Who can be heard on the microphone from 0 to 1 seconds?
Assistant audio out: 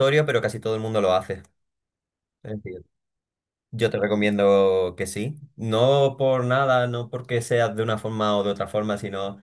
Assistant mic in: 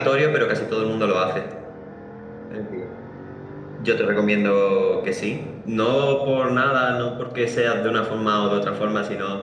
echo only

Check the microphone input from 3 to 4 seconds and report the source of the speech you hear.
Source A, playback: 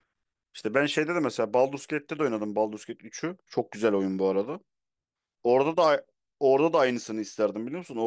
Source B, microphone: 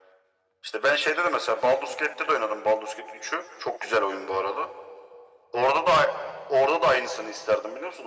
echo only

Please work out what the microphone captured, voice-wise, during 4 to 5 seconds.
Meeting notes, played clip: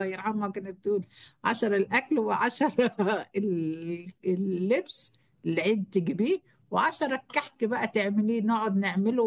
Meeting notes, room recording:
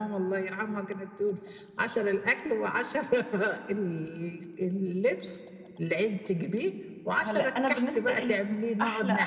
echo only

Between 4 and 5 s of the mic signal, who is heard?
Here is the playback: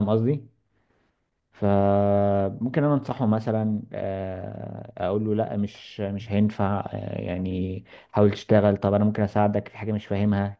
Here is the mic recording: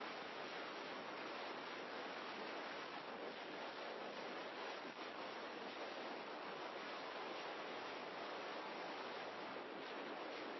neither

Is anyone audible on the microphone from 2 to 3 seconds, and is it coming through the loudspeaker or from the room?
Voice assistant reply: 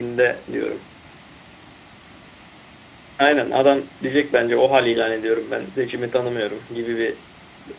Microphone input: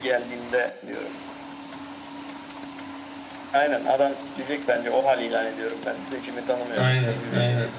neither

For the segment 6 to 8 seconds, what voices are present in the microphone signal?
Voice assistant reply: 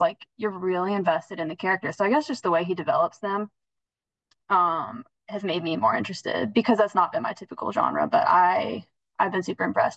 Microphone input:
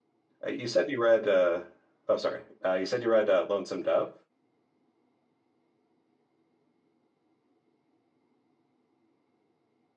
neither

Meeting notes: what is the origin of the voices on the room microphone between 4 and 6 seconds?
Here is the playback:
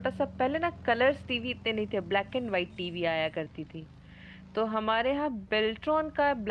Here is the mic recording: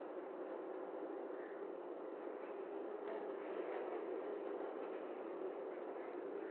neither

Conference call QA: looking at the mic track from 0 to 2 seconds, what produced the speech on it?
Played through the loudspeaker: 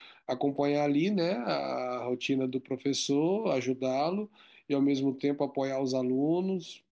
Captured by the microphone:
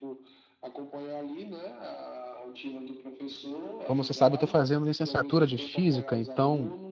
echo only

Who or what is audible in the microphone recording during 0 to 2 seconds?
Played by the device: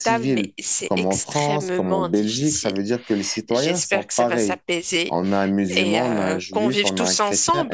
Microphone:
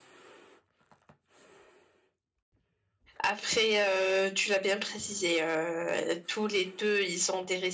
neither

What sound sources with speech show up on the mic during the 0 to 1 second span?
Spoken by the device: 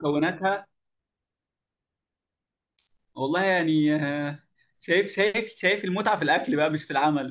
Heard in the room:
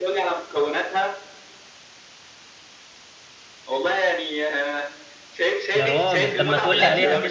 echo only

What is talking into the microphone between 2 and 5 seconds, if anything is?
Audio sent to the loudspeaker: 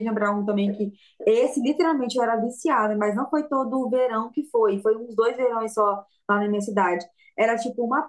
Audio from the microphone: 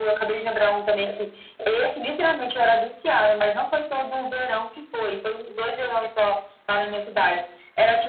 echo only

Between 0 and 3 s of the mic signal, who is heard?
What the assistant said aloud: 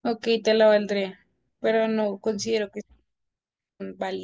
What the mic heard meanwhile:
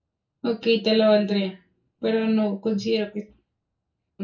echo only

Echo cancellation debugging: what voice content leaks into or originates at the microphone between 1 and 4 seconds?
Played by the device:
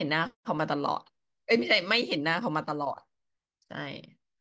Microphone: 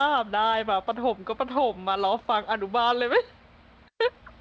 user only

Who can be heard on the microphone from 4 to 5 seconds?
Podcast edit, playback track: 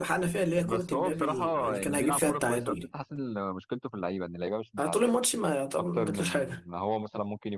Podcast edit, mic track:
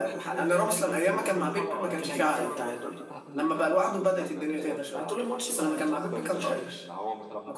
both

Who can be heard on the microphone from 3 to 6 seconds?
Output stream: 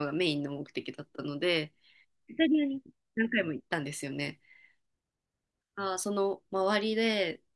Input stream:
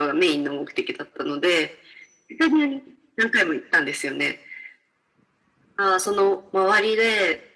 echo only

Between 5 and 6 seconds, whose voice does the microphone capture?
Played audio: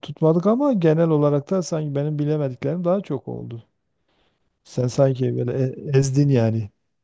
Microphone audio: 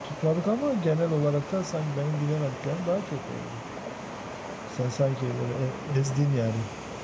echo only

